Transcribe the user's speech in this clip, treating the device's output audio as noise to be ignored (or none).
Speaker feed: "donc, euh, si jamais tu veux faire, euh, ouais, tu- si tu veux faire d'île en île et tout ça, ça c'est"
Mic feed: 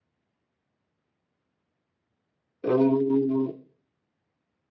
euh, Ouais,